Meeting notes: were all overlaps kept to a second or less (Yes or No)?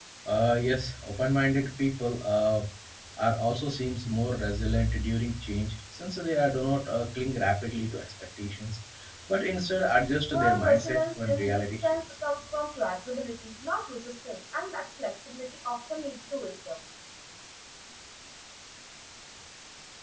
No